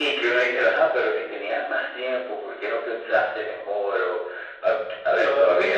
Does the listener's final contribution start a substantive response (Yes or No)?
Yes